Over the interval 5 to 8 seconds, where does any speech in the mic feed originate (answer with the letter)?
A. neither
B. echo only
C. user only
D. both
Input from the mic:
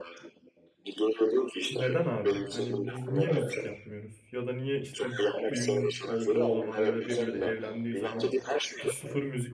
D